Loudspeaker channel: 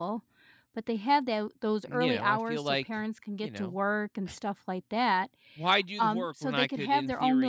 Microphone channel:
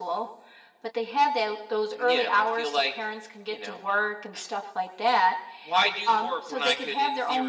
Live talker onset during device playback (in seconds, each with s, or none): none